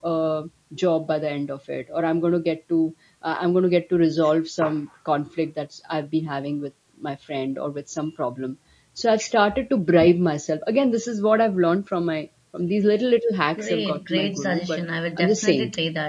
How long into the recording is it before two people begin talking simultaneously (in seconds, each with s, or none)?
13.6 s